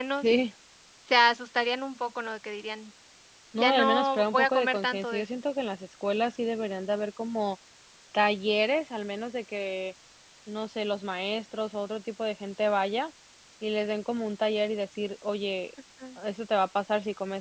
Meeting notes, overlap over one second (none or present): present